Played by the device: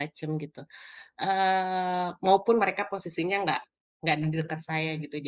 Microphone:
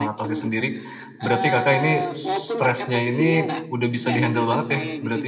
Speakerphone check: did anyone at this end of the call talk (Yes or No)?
Yes